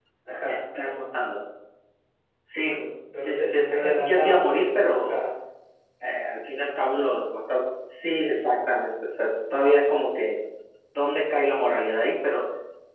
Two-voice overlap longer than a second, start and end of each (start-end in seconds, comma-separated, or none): 3.2-5.2